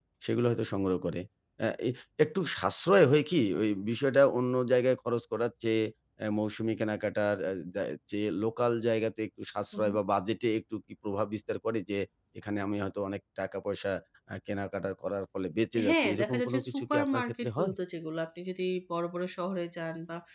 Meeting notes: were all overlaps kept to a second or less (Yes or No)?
No